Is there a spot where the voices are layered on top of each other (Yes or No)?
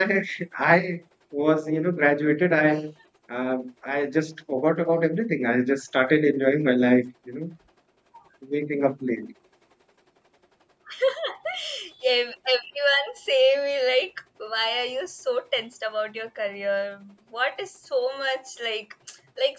No